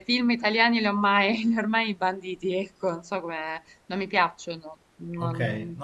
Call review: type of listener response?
taking over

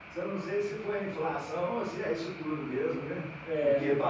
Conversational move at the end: listening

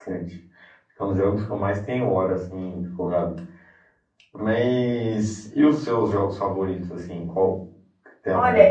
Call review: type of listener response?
taking over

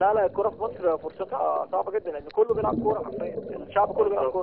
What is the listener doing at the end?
taking over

